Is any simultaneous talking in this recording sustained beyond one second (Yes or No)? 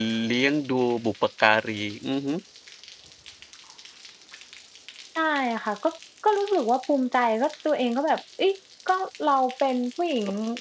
No